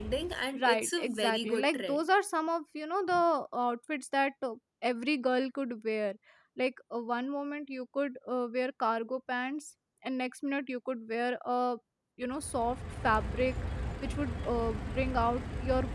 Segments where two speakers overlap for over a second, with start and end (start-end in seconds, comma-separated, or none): 0.6-2.1